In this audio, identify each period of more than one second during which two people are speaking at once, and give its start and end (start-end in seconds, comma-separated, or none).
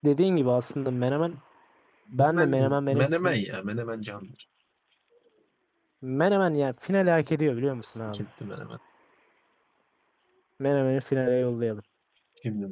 2.2-3.4